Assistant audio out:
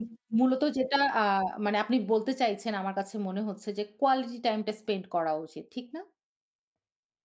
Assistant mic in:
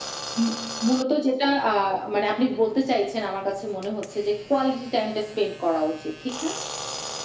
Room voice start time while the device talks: none

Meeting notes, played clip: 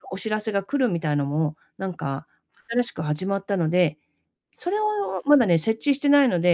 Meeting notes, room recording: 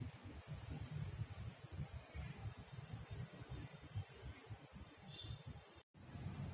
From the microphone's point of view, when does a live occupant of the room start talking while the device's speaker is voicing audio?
none

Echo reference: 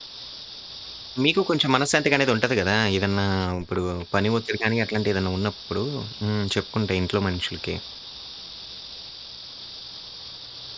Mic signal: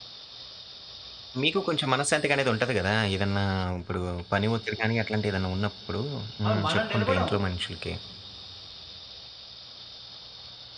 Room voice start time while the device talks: 6.5 s

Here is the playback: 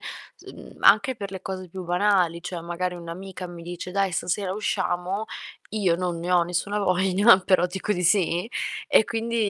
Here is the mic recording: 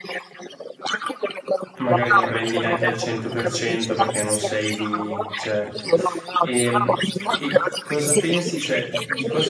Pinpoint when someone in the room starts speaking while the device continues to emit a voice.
1.8 s

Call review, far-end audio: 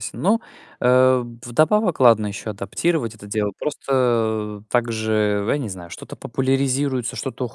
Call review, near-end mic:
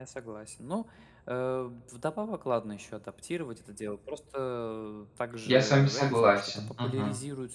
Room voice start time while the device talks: 5.5 s

